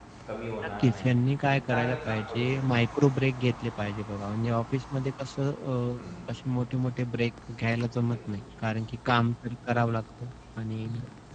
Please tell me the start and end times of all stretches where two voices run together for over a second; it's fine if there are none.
0.6-2.6

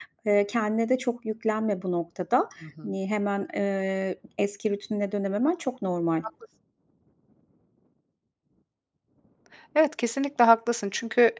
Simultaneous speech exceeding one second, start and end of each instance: none

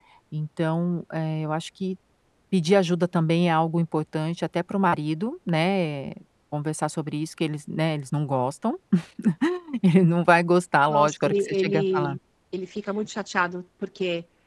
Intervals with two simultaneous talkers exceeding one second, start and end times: 10.9-12.2

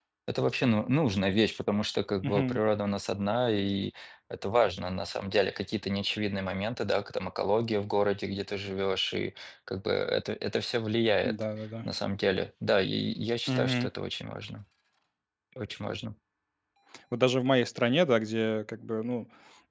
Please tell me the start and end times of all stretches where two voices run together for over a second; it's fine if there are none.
none

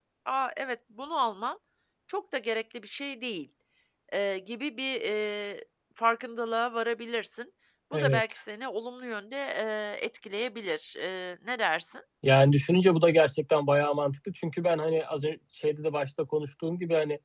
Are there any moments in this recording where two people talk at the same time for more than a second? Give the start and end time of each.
none

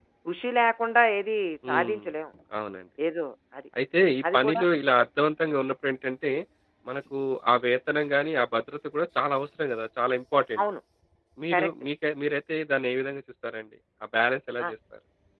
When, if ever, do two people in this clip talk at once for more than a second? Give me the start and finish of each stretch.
none

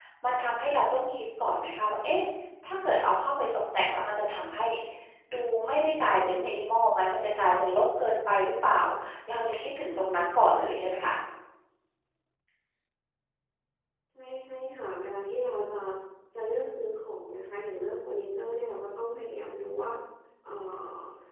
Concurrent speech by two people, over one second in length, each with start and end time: none

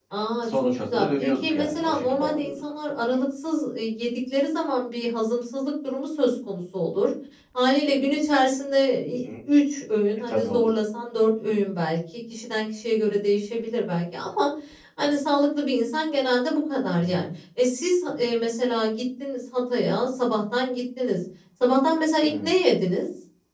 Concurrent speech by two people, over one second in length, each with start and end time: 0.6-2.5

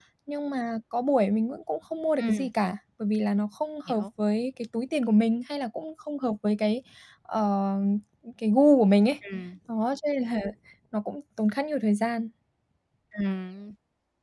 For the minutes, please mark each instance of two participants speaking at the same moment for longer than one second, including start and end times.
none

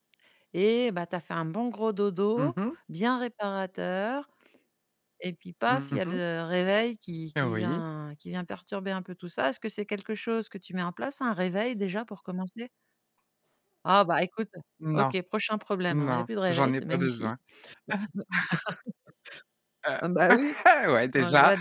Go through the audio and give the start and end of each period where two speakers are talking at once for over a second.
15.9-17.3

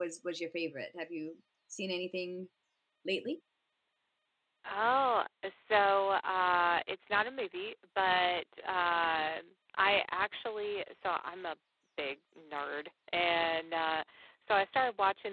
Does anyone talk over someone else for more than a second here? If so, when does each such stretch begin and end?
none

